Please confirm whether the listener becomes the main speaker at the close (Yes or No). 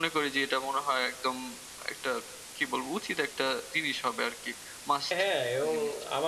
Yes